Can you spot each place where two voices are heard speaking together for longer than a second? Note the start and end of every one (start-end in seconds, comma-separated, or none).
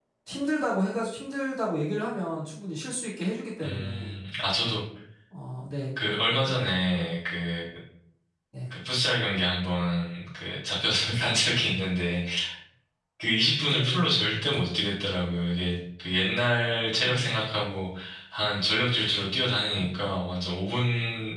none